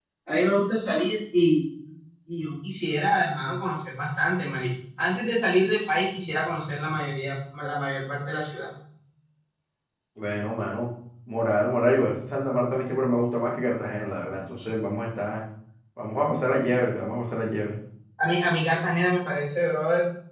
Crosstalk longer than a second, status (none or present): none